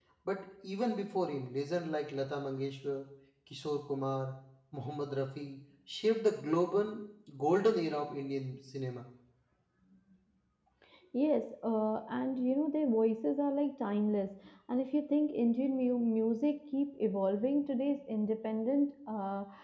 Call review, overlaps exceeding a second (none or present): none